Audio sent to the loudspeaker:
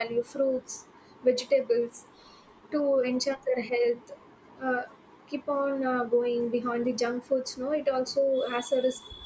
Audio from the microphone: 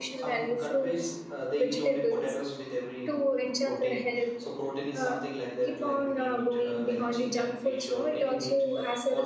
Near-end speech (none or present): present